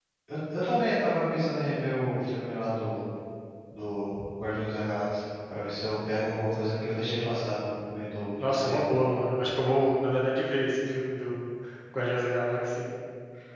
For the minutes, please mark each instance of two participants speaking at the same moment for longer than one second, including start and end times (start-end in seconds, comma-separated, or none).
none